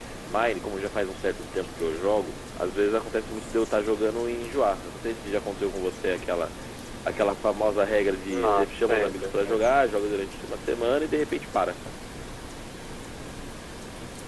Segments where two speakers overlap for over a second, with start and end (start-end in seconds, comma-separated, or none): 8.3-9.6